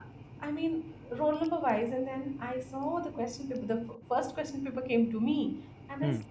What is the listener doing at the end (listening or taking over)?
listening